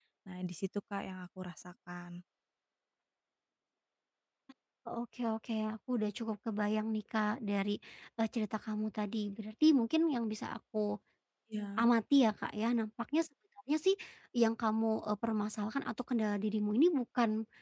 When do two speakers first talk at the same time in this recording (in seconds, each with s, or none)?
none